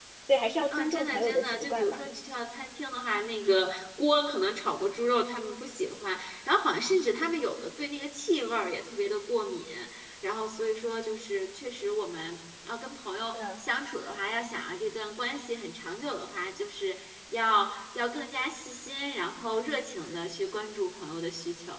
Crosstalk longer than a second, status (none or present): present